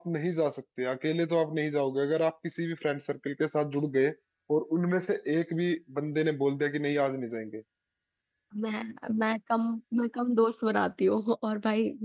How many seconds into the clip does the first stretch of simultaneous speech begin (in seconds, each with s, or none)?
none